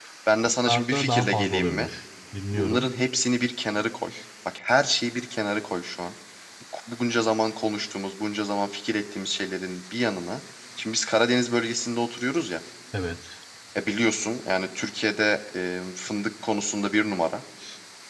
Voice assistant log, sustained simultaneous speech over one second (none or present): present